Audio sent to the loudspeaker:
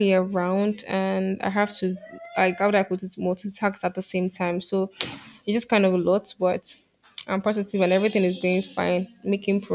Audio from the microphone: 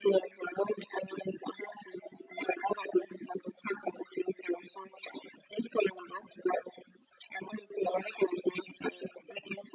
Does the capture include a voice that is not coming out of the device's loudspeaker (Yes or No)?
No